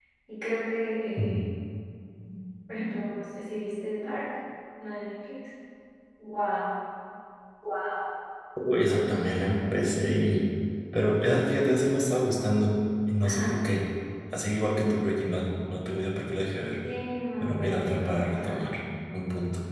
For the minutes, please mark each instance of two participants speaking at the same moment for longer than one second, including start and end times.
17.4-18.7

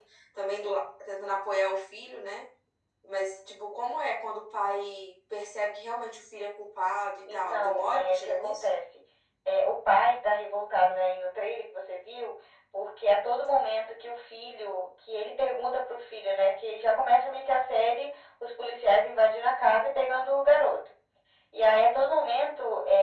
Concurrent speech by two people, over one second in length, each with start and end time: 7.3-8.5

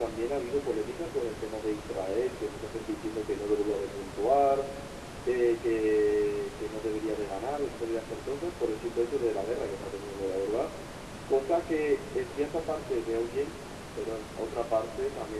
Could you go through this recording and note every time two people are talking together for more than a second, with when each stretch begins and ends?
none

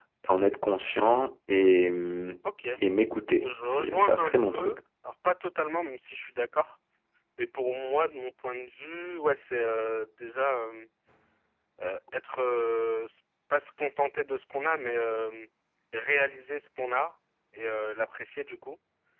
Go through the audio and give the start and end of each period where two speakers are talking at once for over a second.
3.2-4.8

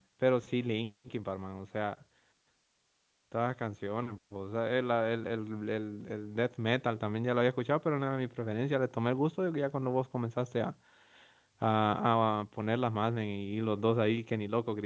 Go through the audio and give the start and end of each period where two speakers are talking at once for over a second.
none

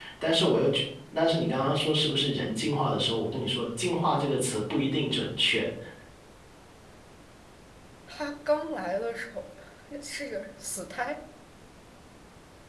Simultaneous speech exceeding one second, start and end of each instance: none

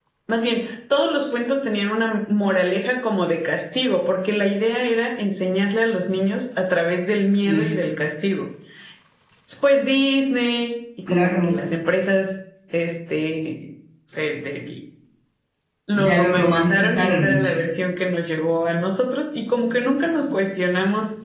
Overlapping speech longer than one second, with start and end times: 15.9-17.5

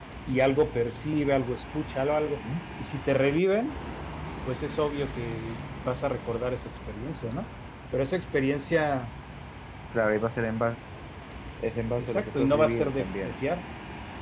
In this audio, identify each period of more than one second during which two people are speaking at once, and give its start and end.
12.0-13.3

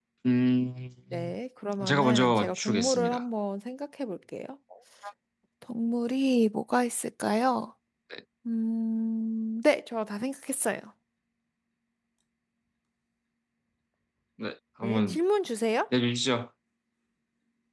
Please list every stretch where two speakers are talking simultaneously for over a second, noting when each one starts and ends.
1.9-3.2

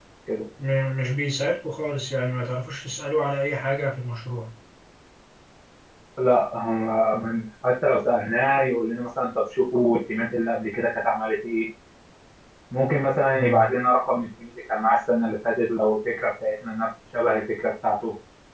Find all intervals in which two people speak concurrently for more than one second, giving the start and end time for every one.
none

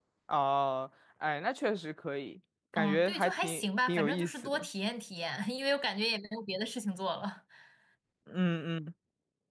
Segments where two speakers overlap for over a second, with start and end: 2.8-4.7

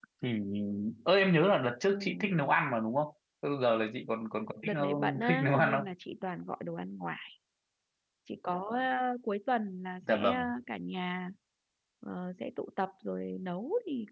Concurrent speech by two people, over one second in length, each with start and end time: 4.7-5.9

